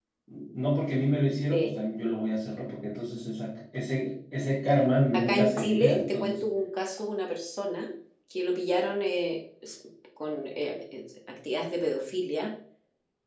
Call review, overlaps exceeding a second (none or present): present